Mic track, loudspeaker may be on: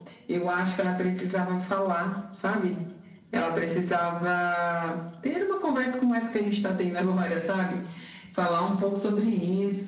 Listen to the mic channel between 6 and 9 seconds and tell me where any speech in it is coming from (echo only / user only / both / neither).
echo only